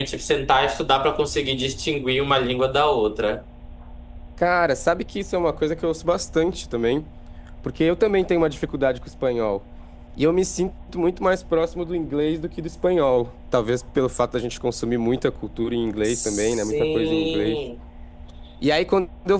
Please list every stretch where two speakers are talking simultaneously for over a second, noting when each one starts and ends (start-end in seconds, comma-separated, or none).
16.0-17.6